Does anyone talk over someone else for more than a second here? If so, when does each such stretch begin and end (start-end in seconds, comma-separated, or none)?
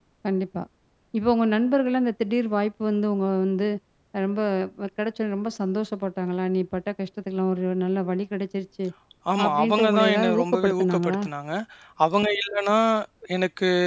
9.4-11.2